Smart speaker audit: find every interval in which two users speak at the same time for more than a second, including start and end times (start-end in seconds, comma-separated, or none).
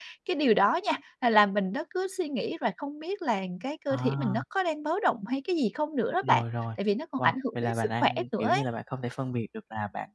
7.2-8.6